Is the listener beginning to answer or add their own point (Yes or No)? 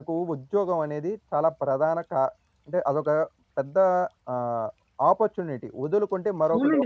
Yes